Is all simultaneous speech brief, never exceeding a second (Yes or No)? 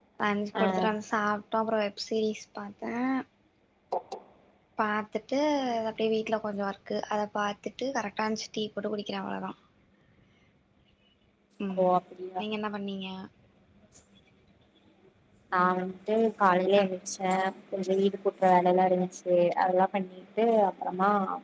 Yes